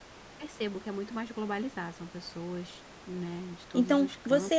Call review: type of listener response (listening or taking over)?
taking over